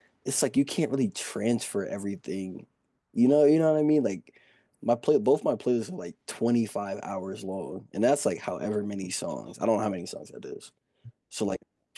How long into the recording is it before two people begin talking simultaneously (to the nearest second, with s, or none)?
none